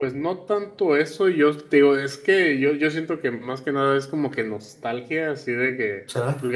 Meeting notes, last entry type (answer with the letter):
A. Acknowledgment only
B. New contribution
A